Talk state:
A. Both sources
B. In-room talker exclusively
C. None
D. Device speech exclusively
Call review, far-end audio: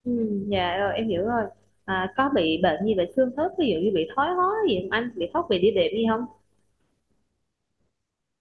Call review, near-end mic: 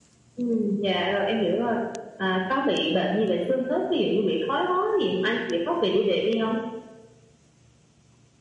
D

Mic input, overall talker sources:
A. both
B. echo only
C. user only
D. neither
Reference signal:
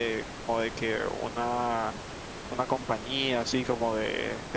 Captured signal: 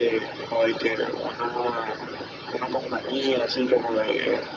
B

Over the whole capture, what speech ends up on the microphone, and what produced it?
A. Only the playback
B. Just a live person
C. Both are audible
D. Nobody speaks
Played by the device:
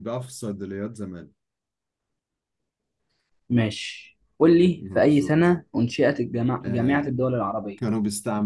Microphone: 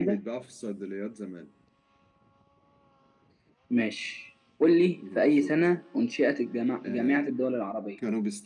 A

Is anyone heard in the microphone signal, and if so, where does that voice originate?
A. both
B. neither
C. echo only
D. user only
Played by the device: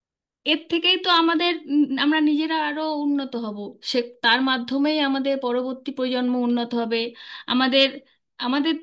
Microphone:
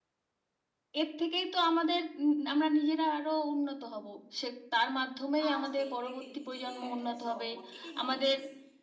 A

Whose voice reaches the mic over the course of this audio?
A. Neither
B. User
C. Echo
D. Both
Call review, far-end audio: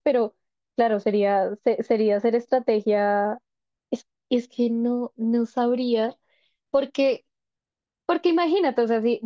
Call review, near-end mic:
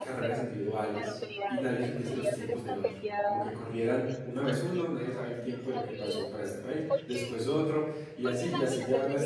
D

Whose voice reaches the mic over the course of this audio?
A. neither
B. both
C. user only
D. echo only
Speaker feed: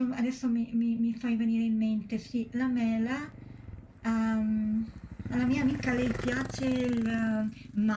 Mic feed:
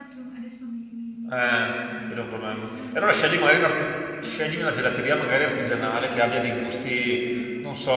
B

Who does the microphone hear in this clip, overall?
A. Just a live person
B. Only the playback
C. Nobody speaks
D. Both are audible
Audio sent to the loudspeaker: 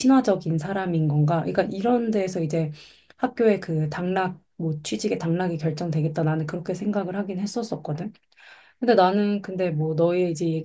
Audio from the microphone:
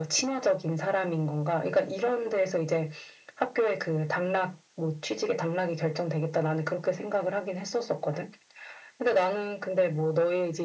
B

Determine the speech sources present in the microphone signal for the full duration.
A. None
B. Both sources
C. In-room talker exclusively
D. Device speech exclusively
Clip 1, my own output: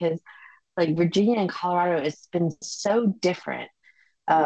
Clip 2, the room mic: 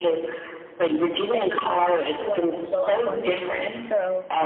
B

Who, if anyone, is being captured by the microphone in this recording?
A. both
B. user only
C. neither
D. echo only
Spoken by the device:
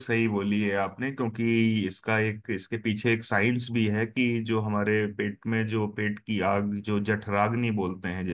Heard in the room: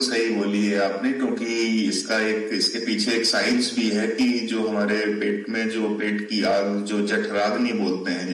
D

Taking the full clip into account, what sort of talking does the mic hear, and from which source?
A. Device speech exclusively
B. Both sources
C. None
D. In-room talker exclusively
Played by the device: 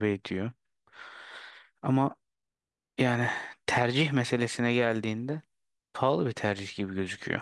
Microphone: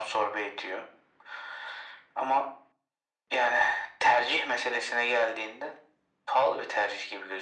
A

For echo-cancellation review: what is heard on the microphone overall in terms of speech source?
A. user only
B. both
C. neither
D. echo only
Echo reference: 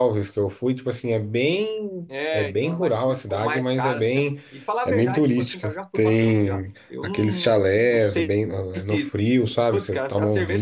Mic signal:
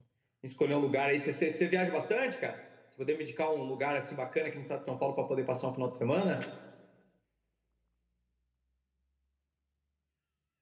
A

